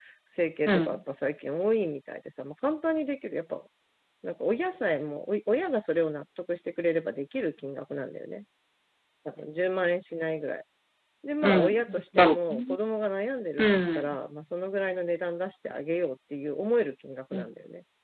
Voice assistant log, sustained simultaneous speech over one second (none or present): present